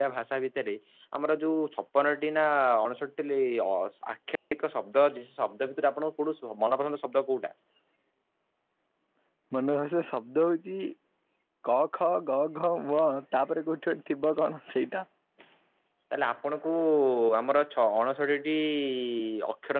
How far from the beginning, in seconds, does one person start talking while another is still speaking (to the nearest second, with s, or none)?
none